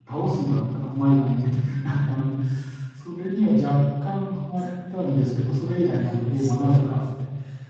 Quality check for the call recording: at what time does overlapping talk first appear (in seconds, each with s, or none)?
5.8 s